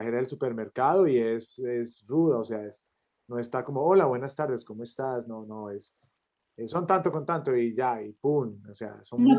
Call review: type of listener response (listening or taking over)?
taking over